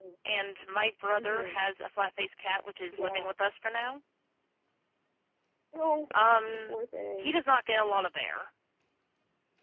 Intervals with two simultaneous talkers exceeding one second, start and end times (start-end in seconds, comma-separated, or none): none